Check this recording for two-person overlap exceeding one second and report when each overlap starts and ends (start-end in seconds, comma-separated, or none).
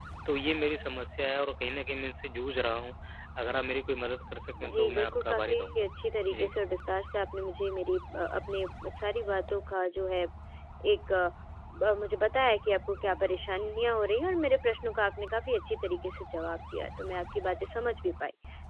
4.6-5.9